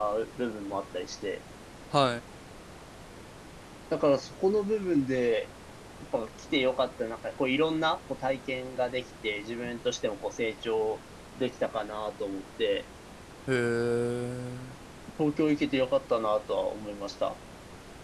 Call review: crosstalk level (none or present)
none